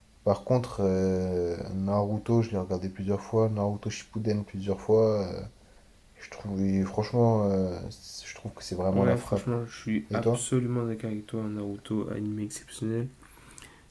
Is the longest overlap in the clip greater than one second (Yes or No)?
No